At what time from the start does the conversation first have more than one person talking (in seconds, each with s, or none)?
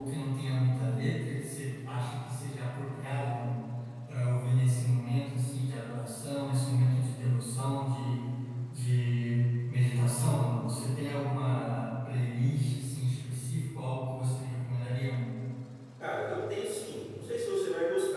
none